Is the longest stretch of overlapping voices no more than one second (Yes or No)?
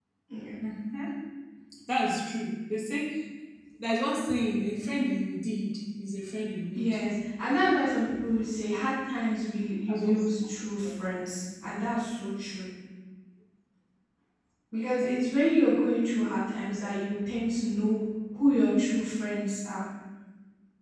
Yes